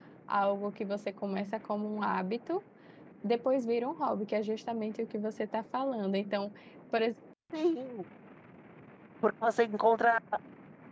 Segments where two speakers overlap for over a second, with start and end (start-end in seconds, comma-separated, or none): none